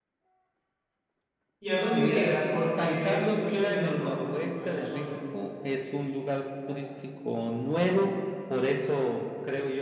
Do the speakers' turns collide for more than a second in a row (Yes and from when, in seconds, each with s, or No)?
Yes, from 1.9 s